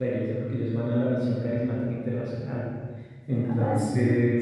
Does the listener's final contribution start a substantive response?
No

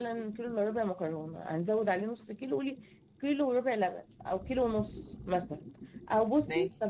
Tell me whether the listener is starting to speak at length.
No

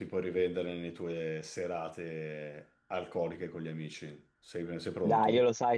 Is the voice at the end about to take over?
Yes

